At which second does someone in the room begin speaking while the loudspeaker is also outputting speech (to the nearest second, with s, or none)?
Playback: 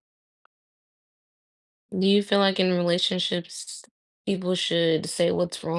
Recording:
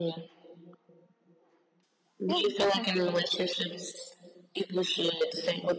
2 s